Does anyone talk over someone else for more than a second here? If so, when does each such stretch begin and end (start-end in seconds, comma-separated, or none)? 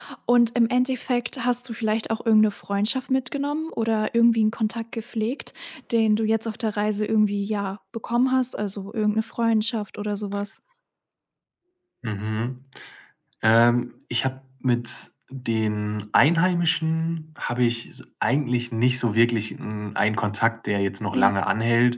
none